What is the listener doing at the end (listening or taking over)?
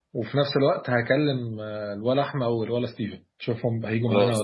taking over